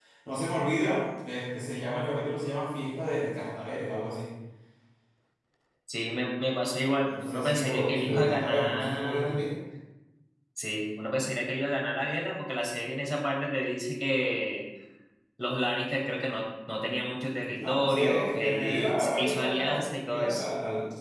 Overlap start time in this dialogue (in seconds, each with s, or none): 7.0 s